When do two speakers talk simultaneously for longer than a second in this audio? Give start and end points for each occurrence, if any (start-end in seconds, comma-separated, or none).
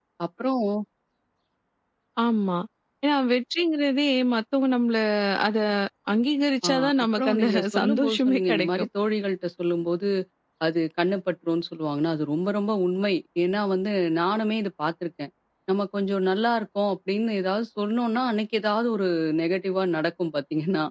6.7-8.9